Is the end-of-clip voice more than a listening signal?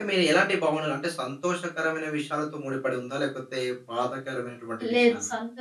Yes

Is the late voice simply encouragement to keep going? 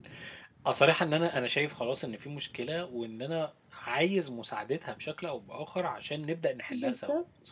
No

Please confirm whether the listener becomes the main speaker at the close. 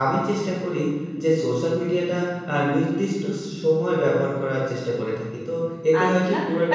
Yes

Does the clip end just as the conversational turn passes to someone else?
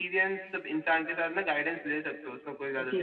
Yes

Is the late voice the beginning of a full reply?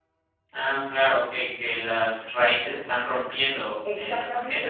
Yes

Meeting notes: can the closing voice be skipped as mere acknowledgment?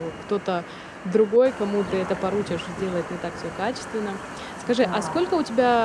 Yes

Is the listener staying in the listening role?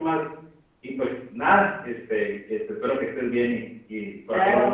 No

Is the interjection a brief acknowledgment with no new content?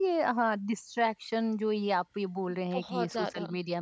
Yes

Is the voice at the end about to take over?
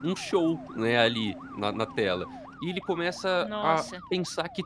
No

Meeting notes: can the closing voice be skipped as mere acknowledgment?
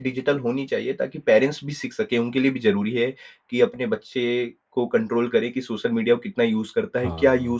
Yes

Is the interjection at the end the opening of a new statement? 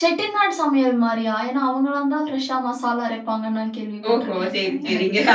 Yes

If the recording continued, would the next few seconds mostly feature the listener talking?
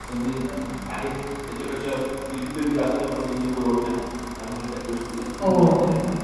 Yes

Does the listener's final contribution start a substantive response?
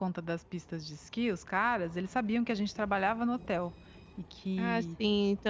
Yes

